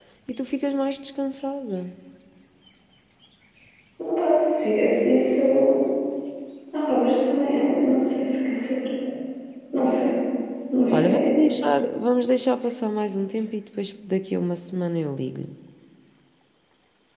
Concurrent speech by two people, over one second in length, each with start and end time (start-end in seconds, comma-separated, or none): none